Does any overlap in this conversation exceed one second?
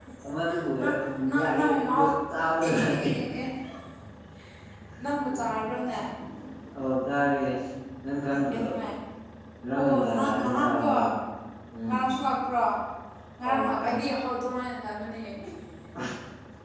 Yes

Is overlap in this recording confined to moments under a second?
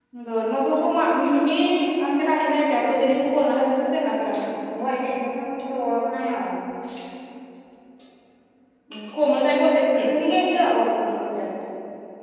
Yes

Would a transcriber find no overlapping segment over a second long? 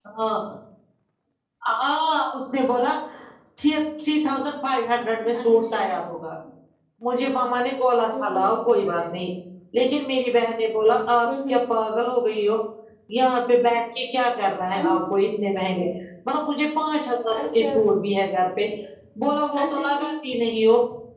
Yes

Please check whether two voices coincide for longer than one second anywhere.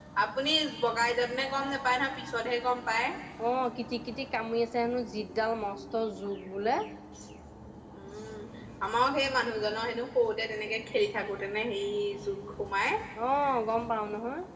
No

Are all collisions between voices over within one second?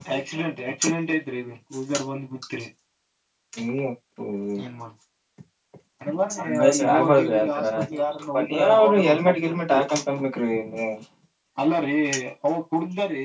No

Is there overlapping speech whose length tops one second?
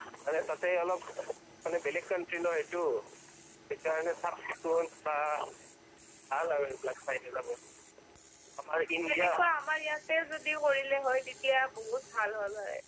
No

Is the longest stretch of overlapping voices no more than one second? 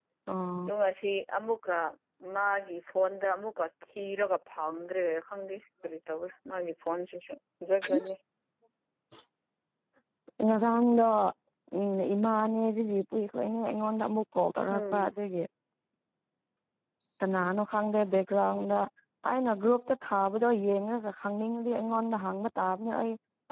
Yes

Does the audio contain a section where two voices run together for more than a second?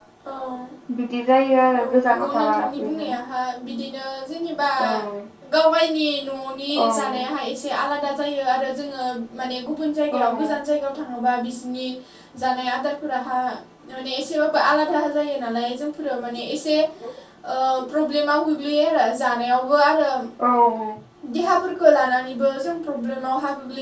Yes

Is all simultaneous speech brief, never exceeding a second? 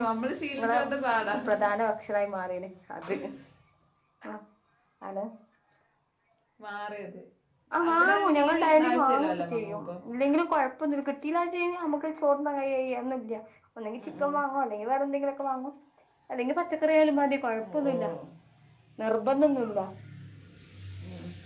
No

